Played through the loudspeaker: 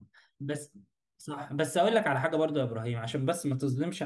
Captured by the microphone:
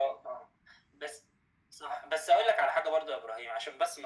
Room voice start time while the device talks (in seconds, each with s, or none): none